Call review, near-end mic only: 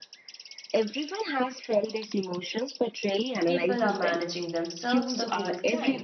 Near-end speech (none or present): present